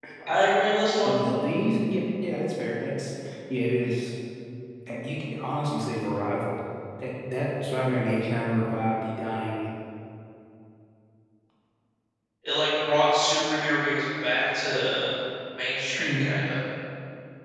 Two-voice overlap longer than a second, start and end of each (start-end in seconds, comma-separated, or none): none